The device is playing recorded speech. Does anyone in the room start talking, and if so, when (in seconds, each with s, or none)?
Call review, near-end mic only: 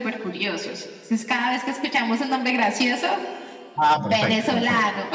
3.8 s